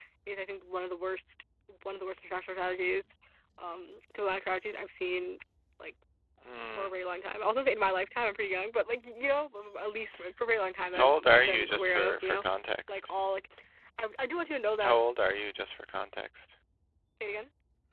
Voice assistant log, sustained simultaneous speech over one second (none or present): present